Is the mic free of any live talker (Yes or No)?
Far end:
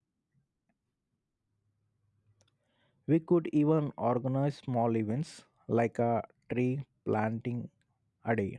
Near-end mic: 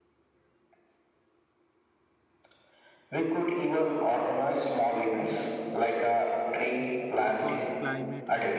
No